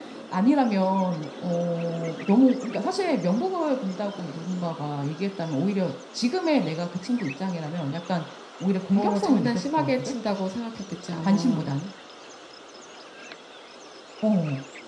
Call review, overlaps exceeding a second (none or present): present